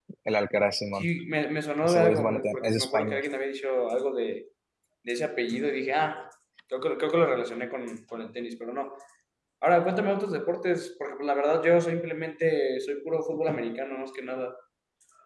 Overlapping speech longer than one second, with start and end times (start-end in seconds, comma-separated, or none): 1.8-3.2